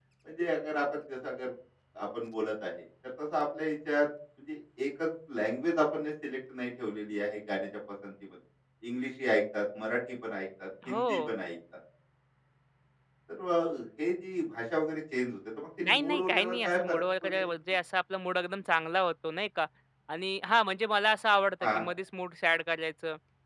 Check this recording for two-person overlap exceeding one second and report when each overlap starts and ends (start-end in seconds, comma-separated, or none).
15.9-17.5